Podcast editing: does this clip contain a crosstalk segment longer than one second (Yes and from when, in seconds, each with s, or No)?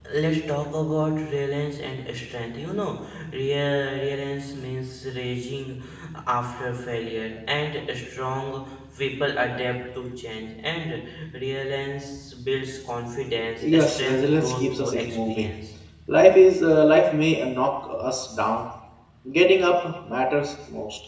Yes, from 13.6 s